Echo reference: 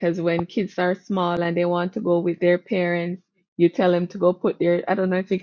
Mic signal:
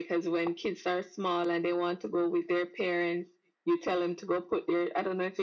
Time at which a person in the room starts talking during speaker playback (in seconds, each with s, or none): none